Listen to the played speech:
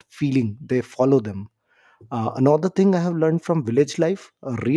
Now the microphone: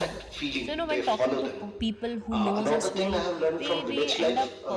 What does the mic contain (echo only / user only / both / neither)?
both